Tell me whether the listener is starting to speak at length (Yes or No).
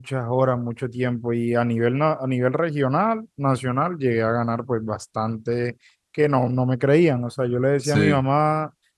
No